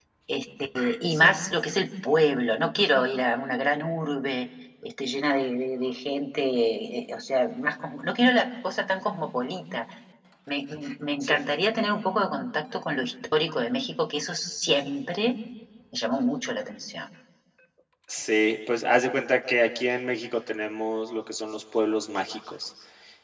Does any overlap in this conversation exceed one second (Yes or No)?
No